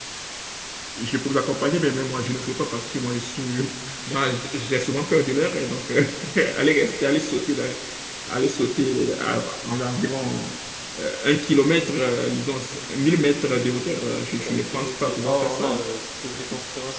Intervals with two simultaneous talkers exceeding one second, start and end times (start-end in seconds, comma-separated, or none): 14.4-15.8